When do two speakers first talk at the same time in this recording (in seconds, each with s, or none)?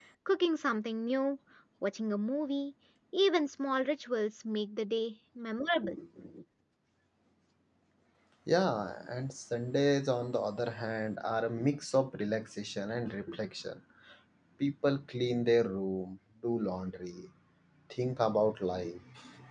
none